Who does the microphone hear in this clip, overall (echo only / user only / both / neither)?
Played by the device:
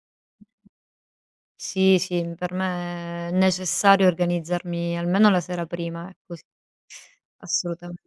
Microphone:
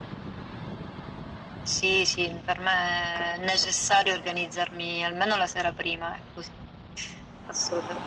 echo only